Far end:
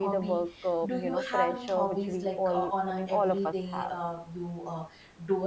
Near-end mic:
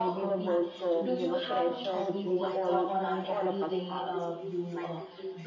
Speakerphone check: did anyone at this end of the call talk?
Yes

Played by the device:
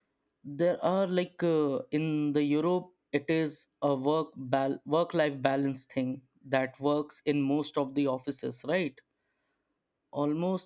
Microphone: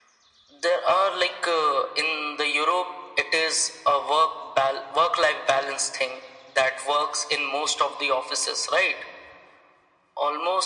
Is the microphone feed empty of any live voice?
Yes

